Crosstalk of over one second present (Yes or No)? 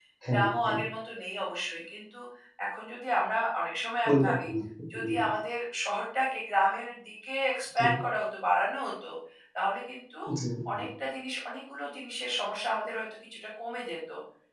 No